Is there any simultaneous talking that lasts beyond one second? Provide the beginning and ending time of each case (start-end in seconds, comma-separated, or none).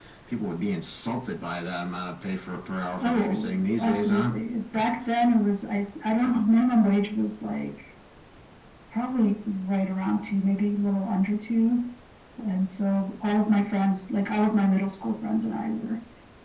3.0-4.3